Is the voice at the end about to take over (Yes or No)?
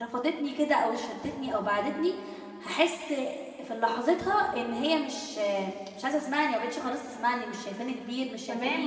Yes